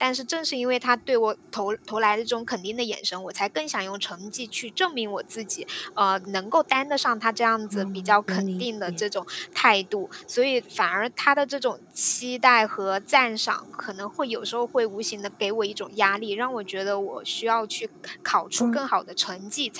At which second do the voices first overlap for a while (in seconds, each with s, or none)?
7.7 s